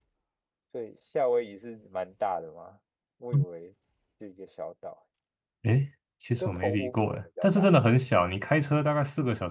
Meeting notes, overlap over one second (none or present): present